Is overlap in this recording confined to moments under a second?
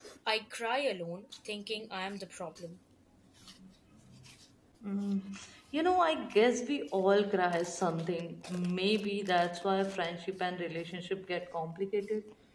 Yes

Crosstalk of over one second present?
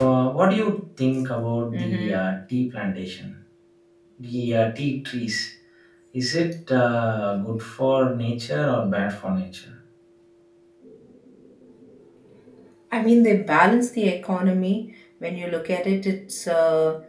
No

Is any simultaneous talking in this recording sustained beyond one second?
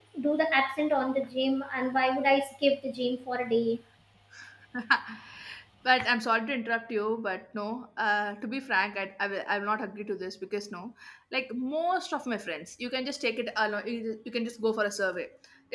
No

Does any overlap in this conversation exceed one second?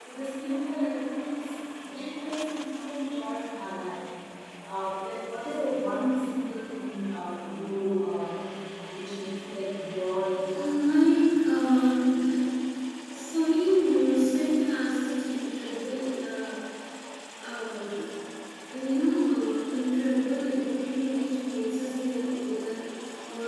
No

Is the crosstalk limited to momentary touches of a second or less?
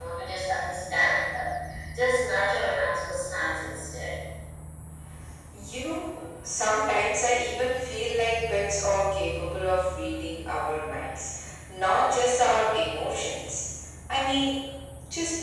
Yes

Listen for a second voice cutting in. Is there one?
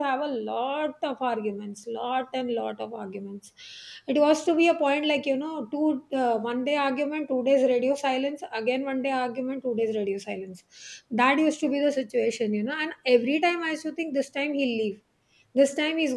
No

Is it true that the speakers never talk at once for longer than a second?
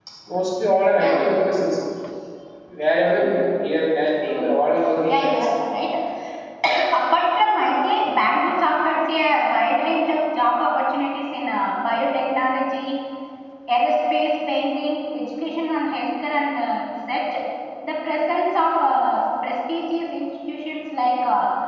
Yes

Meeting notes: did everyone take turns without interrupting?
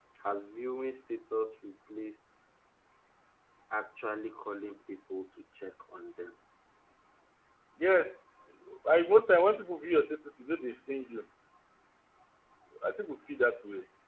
Yes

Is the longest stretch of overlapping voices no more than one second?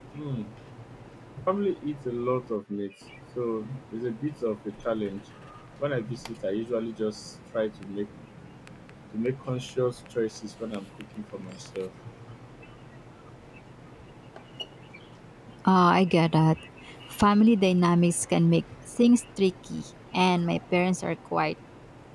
Yes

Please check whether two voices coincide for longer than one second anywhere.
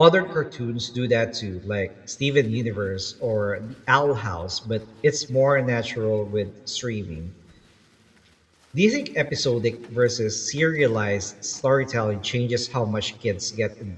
No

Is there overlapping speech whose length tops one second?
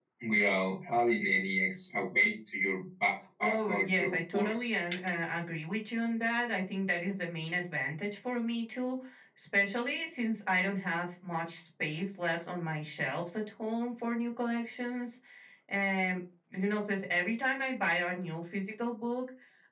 Yes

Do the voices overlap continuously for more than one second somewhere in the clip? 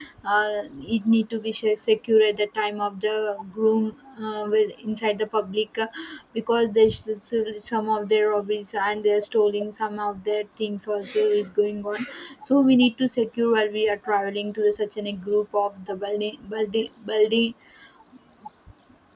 No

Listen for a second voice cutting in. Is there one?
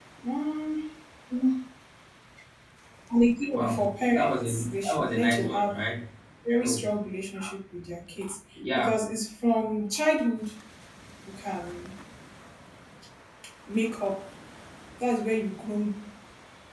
Yes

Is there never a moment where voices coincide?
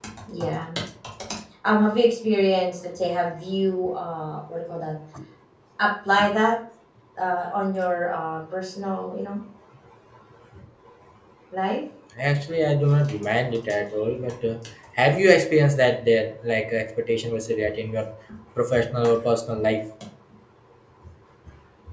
Yes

